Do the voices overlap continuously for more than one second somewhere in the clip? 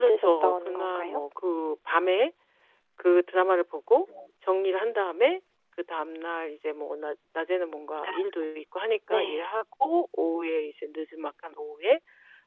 Yes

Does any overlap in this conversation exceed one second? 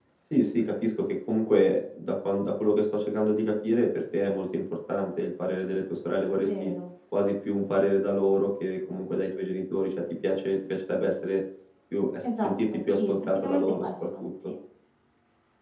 Yes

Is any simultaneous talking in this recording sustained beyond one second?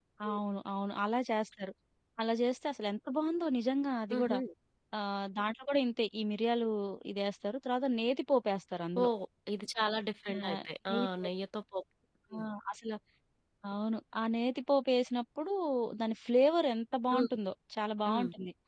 No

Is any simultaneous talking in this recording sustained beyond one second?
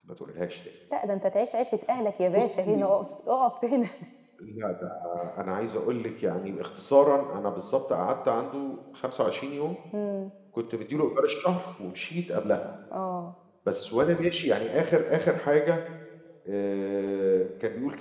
No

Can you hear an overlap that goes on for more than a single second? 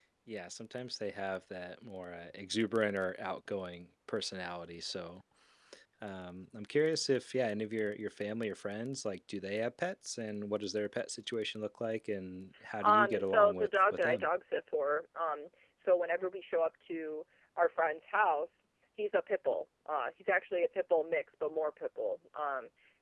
Yes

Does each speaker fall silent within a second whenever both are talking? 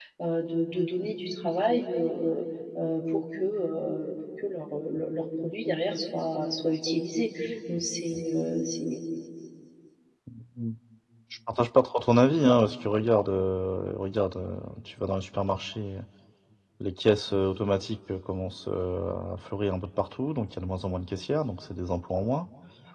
Yes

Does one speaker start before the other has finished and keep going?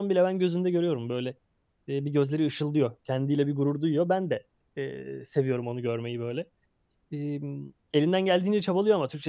No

